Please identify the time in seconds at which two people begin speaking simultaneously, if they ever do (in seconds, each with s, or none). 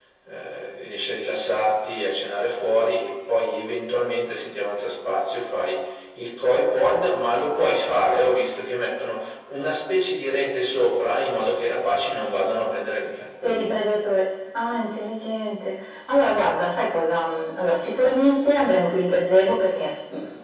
none